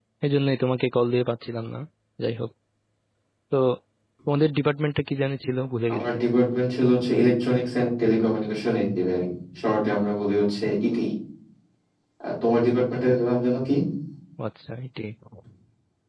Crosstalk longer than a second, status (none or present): none